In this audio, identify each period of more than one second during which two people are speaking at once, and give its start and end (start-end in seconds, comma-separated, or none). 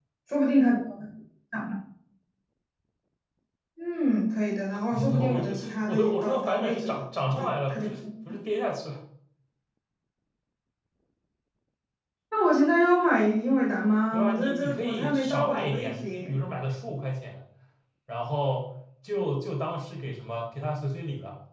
4.9-7.8, 14.1-16.4